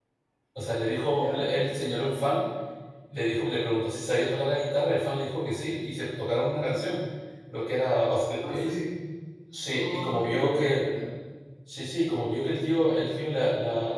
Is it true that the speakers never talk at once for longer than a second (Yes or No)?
No